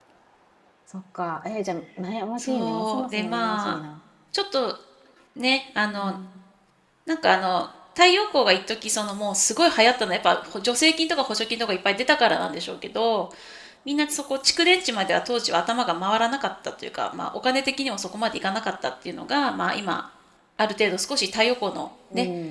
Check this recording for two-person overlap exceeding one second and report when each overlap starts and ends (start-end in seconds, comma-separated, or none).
2.4-3.8